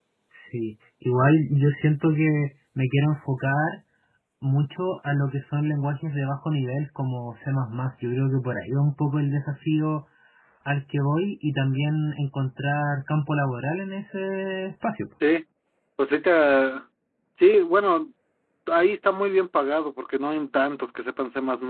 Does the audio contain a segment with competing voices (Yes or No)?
No